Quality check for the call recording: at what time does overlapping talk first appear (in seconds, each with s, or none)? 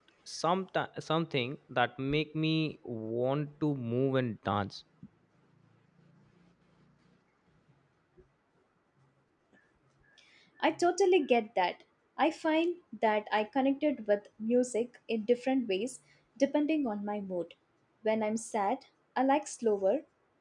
none